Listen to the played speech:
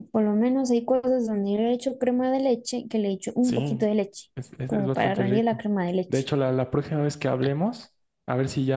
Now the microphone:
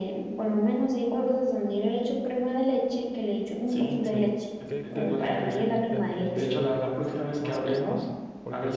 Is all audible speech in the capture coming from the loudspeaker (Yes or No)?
No